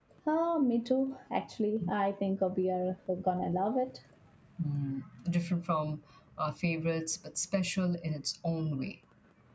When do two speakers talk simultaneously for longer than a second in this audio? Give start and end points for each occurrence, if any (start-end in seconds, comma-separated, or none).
none